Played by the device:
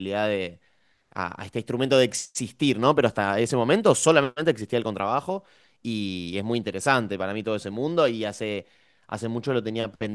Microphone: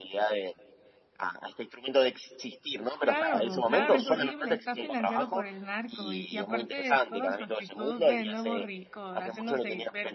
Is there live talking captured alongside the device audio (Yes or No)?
Yes